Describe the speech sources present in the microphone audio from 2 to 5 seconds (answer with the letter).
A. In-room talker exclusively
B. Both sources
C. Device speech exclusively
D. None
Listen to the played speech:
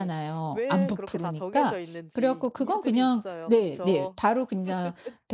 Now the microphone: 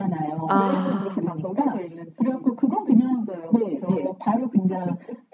C